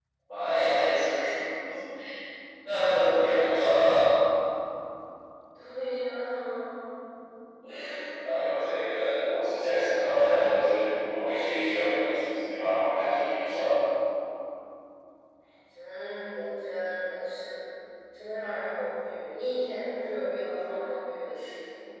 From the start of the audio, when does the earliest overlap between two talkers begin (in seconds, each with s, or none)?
none